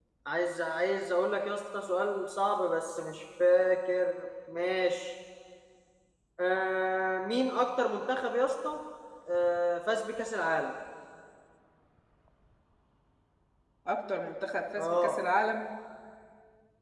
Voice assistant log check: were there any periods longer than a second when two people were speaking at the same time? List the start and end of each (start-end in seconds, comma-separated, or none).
none